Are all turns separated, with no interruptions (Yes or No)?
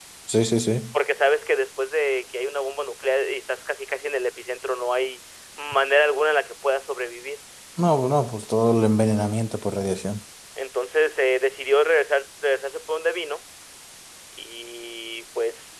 Yes